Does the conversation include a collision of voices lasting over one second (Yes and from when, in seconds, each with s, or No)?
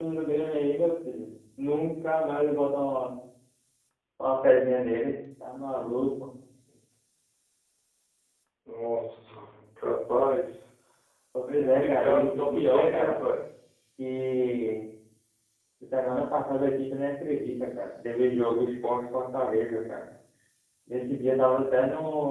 Yes, from 11.6 s